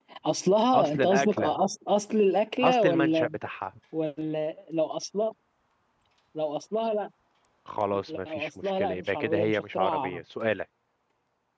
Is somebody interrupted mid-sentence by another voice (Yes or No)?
Yes